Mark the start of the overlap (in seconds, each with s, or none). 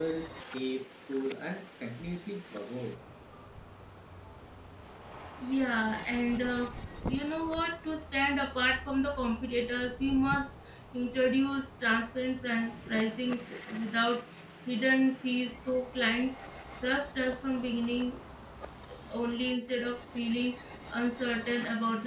none